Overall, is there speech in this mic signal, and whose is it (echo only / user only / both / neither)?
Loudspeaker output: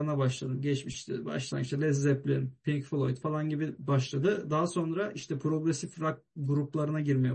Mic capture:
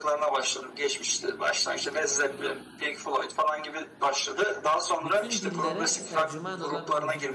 both